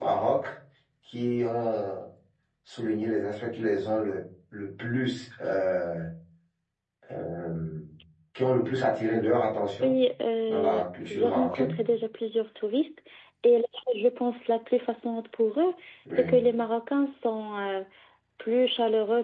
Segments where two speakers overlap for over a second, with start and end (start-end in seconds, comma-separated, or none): 10.5-11.7